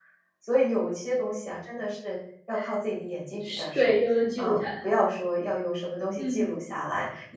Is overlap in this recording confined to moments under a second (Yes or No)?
Yes